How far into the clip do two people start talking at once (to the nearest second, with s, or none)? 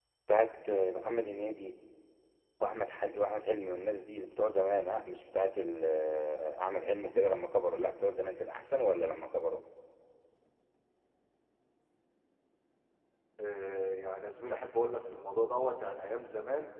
none